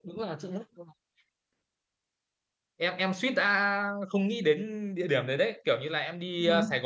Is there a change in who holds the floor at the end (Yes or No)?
No